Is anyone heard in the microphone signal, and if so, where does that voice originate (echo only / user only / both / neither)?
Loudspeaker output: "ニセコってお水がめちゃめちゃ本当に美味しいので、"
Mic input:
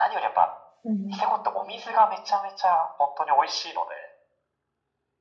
both